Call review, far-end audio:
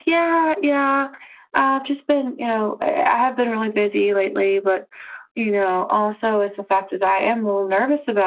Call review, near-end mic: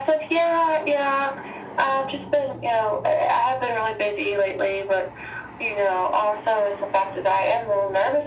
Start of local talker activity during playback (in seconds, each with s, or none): none